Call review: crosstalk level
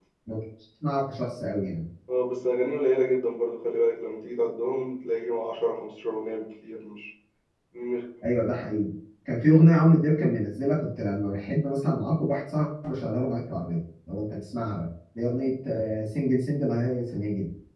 none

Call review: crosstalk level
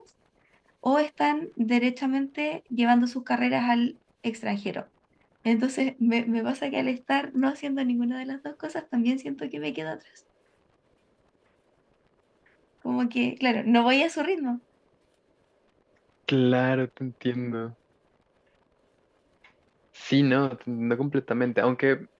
none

